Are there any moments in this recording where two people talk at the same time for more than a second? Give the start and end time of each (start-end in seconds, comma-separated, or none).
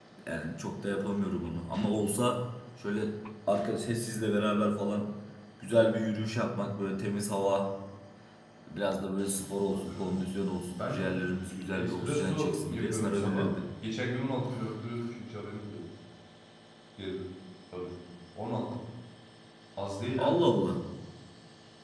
11.7-13.5